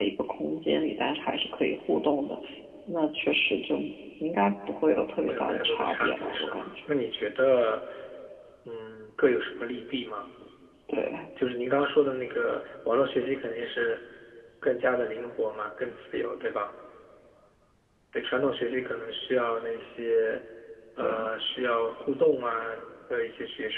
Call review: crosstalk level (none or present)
present